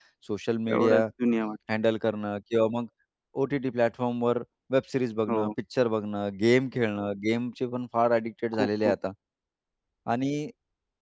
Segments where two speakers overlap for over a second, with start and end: none

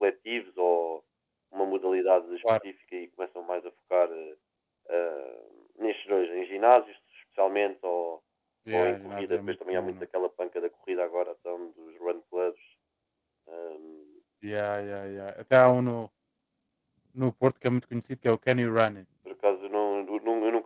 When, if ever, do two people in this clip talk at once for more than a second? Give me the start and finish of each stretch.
8.7-9.9

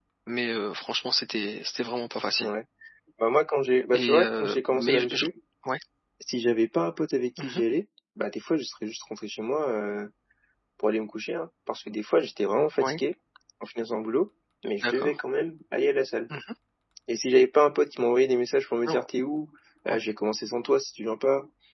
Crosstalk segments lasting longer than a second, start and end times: 3.9-5.2

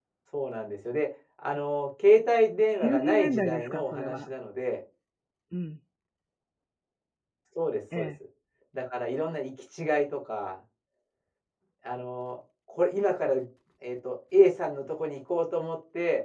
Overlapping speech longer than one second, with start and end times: 2.7-4.3

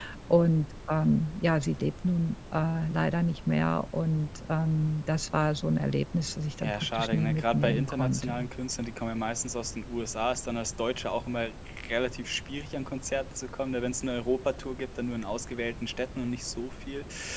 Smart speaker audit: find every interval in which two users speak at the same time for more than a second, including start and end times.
6.6-8.5

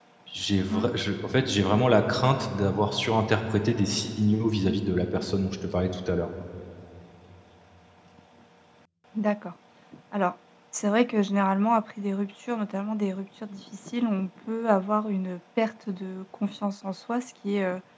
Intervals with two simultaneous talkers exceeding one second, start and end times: none

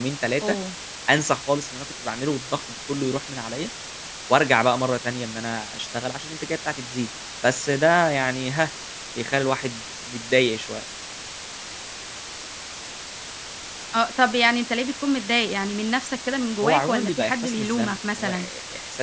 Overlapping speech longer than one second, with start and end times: 16.6-18.5

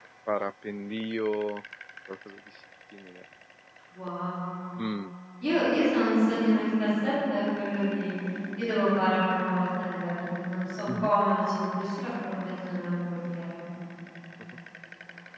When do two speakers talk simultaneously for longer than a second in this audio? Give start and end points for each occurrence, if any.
none

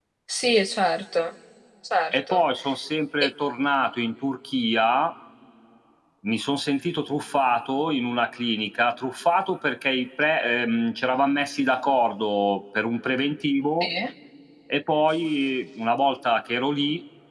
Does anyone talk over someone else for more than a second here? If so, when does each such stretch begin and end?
none

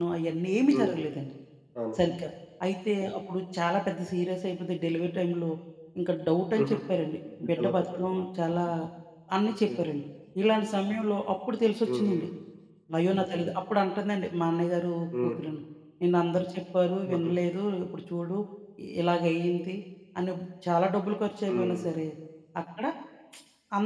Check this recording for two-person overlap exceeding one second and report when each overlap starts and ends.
none

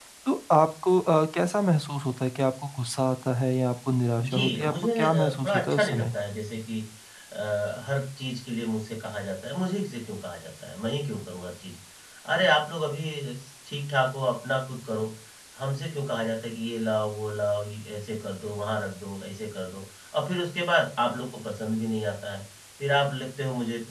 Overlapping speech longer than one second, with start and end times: 4.3-6.0

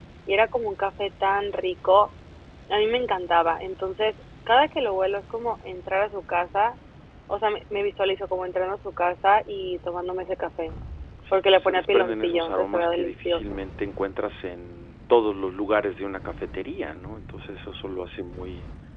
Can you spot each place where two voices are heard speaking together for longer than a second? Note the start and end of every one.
11.3-13.6

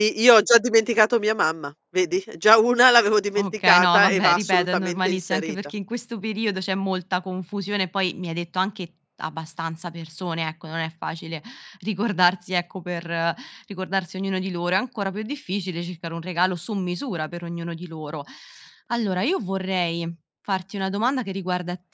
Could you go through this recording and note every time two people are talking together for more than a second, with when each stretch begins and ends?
3.4-5.6

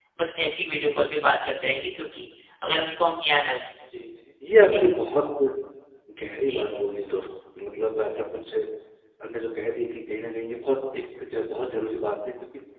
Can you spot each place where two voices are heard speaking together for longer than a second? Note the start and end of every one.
none

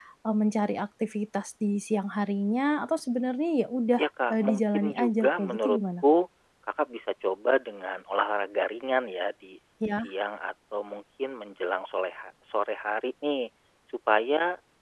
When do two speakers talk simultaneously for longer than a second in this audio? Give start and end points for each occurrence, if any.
4.0-5.8

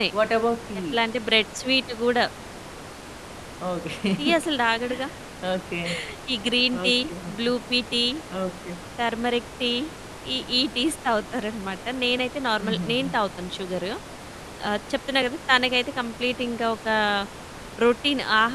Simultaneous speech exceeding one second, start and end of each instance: none

